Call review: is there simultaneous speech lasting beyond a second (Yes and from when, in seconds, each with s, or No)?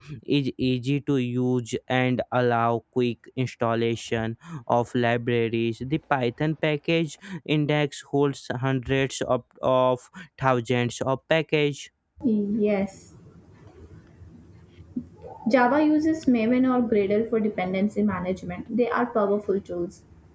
No